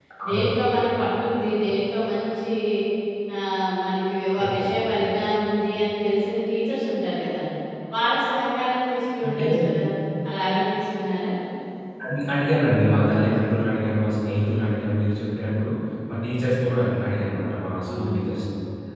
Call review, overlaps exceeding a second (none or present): none